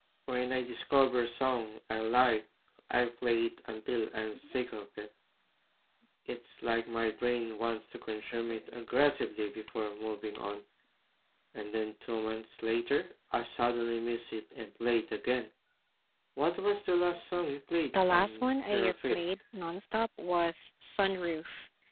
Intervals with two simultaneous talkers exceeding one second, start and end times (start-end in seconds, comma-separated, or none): 17.9-19.2